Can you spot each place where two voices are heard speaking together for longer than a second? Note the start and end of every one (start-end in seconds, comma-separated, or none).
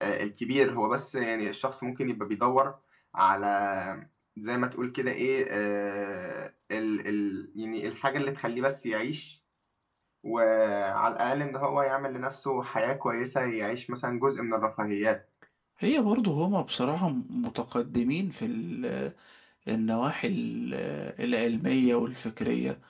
none